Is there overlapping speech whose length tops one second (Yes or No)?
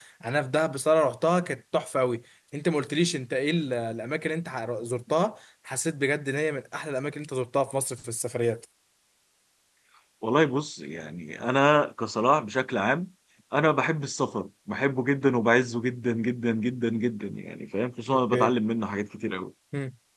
No